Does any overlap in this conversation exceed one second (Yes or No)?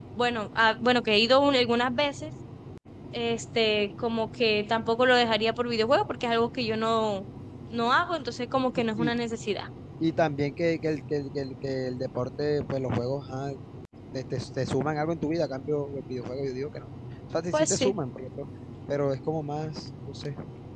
No